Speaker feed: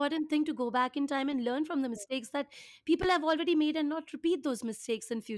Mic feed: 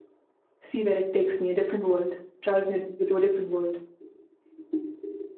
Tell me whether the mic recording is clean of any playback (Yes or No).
Yes